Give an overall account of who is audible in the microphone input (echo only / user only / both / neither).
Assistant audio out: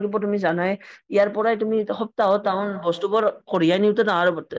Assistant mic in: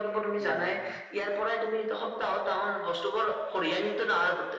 both